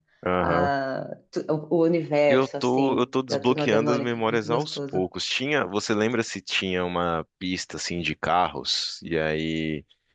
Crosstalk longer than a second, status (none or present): present